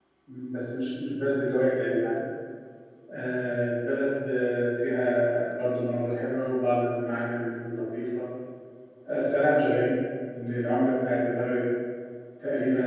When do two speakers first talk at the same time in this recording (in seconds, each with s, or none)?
none